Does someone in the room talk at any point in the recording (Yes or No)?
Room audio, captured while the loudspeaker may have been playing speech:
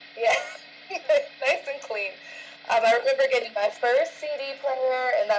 No